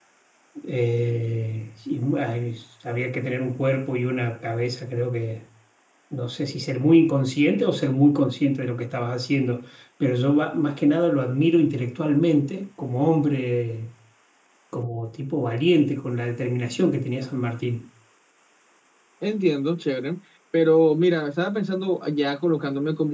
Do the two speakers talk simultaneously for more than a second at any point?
No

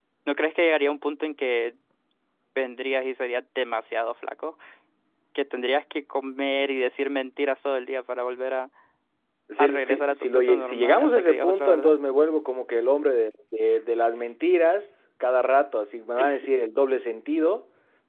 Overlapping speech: Yes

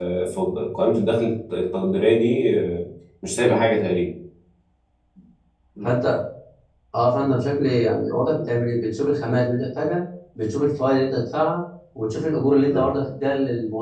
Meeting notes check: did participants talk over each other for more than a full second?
No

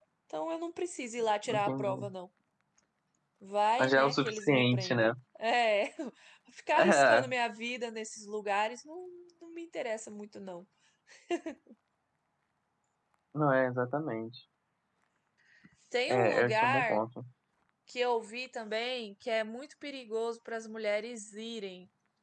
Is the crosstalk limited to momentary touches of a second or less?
No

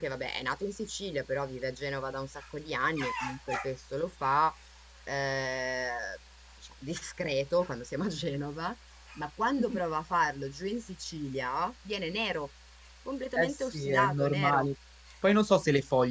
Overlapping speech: Yes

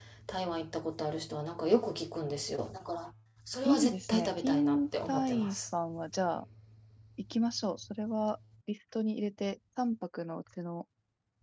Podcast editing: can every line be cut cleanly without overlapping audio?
No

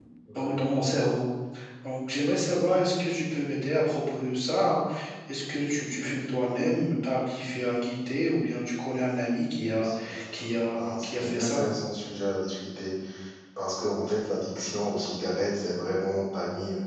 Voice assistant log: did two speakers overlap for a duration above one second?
Yes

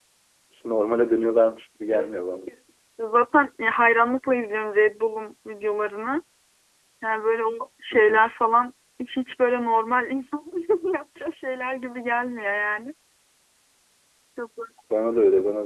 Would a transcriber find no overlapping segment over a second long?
Yes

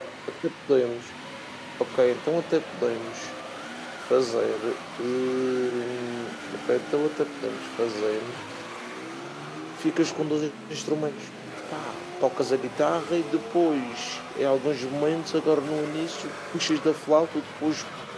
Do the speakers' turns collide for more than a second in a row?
No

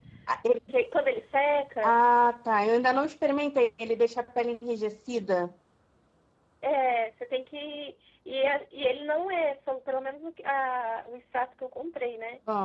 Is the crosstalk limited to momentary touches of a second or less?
Yes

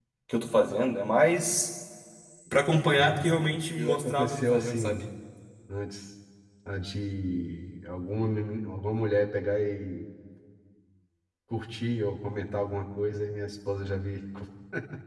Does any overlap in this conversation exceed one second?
Yes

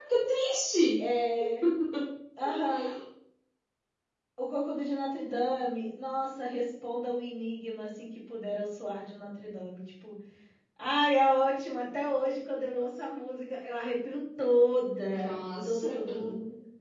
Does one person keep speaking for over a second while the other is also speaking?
Yes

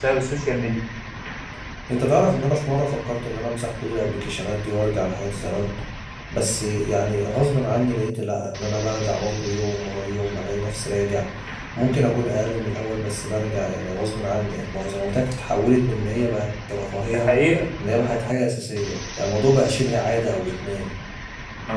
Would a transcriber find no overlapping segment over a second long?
Yes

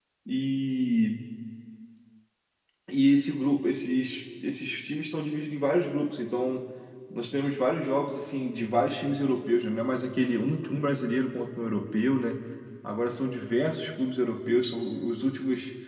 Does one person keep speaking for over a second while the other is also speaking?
No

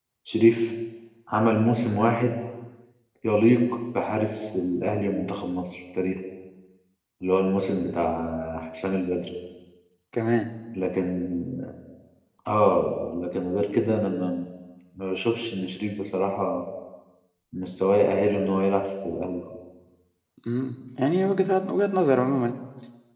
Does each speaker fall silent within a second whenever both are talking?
Yes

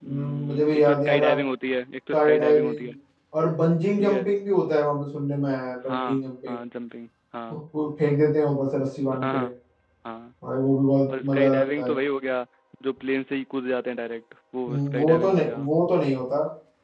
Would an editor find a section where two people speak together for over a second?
Yes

